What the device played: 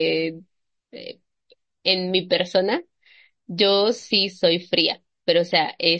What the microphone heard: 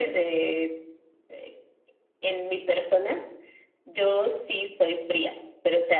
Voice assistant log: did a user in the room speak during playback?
No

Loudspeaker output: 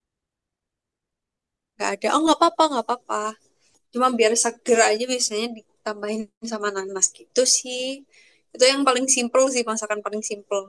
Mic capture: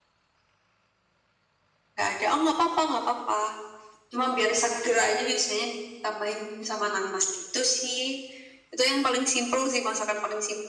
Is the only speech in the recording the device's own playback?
Yes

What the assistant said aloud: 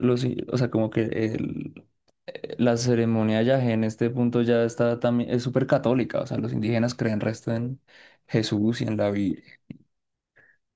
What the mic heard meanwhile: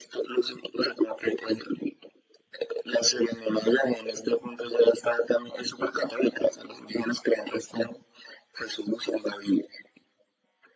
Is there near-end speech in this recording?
No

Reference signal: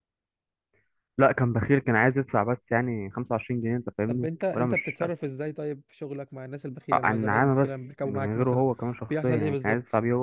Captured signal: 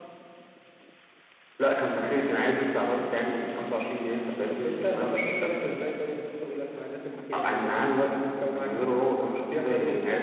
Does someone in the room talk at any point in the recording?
No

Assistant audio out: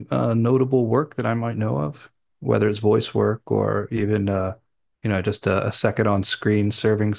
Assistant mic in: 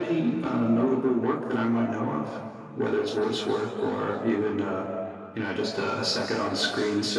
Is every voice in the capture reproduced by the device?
Yes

